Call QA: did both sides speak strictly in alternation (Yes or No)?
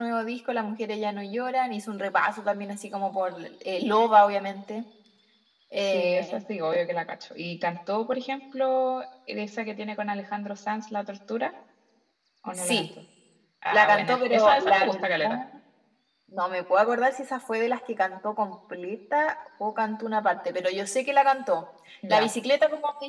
No